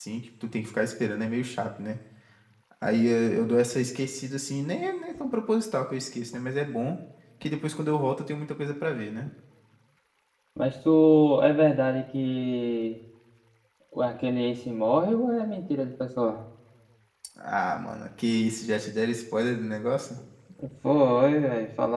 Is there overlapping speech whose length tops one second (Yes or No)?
No